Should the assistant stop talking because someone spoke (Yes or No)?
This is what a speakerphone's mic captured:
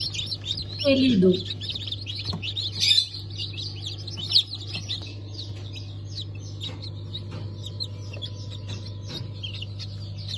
Yes